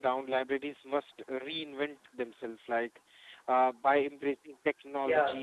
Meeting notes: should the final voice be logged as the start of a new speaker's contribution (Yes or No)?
No